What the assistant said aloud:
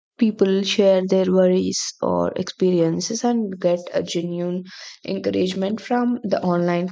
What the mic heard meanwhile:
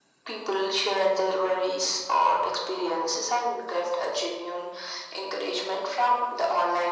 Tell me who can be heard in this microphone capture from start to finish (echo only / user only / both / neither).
echo only